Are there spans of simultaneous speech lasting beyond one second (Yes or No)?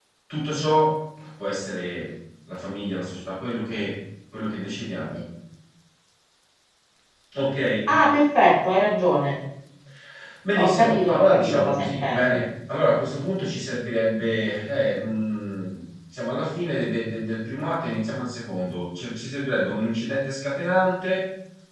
Yes